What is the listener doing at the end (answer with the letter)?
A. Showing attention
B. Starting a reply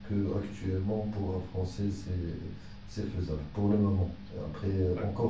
A